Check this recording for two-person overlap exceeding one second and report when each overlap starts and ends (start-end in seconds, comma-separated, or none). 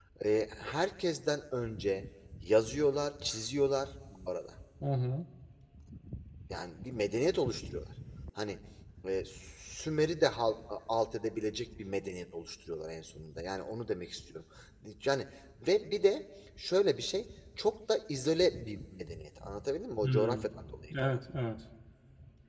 none